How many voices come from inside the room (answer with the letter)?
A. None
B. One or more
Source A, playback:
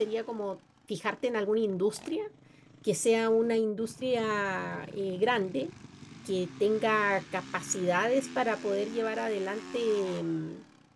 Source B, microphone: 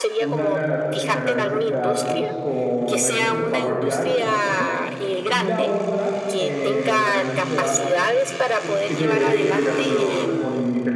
B